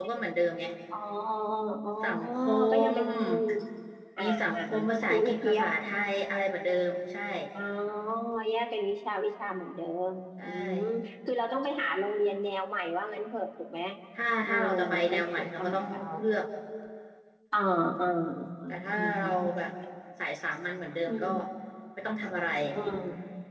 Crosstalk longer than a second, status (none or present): present